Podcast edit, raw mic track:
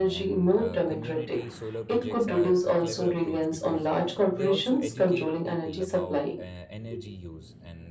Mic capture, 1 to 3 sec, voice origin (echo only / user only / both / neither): both